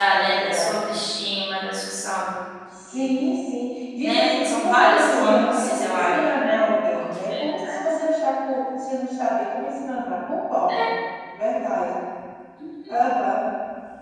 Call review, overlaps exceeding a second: present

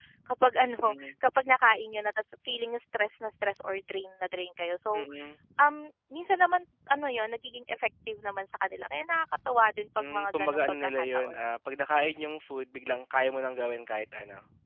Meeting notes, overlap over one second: present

